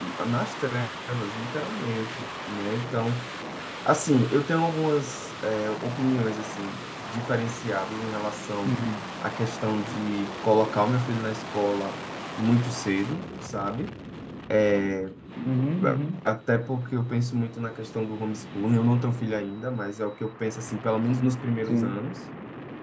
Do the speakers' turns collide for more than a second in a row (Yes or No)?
No